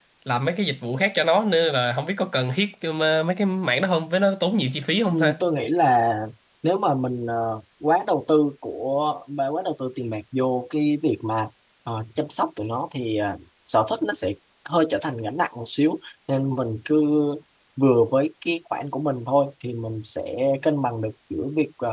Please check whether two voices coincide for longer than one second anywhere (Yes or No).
No